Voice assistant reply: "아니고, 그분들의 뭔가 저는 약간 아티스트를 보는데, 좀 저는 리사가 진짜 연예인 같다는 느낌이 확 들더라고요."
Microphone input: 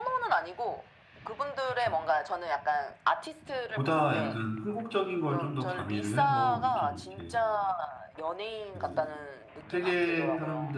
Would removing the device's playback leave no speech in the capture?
No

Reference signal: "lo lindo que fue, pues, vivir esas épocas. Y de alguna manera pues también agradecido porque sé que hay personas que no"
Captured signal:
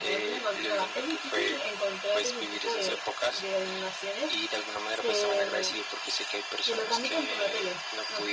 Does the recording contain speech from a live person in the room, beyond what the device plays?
Yes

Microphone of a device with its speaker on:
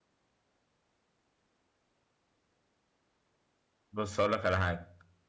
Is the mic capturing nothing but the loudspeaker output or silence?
No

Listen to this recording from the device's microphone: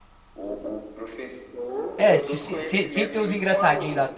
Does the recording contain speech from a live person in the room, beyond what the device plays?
Yes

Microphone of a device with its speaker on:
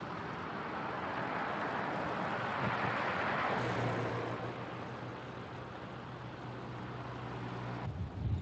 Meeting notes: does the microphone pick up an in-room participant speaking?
No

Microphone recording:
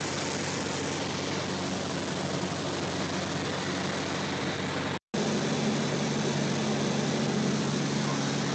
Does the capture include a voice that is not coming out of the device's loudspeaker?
No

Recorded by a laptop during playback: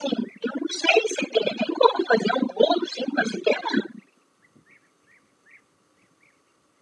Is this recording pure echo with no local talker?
Yes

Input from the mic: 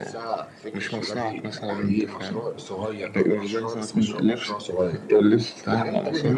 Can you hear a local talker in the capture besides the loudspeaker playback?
No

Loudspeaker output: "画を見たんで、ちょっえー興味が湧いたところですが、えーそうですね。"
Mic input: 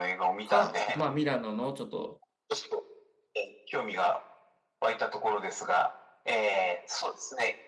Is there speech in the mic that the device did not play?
Yes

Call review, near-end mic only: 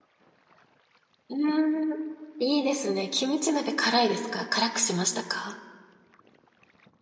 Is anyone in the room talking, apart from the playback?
Yes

